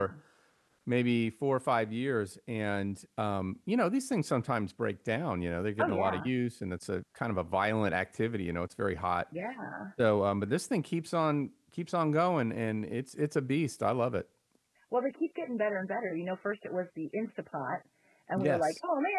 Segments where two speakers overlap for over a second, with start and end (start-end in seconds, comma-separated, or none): none